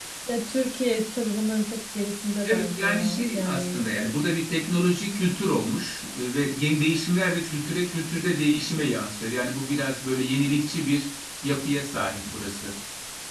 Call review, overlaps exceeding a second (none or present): present